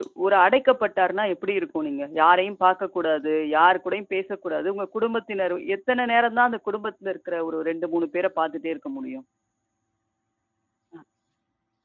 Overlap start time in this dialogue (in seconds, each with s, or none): none